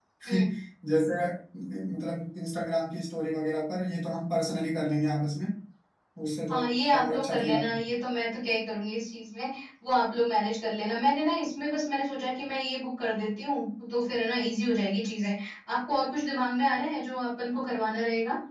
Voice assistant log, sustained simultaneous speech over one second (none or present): present